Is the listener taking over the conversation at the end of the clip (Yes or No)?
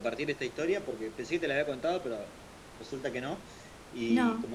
No